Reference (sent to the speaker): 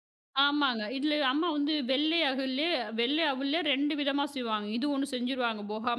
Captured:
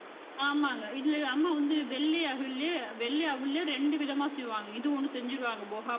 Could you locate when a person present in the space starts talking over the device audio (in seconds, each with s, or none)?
none